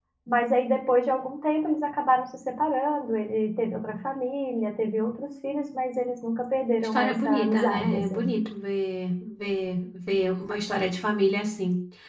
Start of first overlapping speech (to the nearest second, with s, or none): 7 s